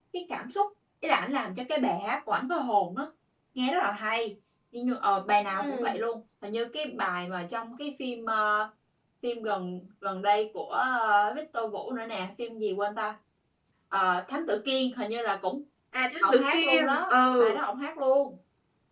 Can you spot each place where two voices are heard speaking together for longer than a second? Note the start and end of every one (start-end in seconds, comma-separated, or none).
16.2-17.6